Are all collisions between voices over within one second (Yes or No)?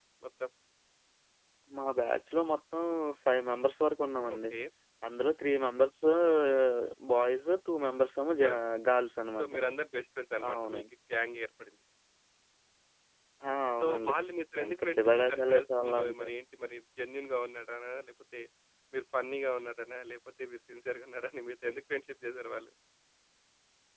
No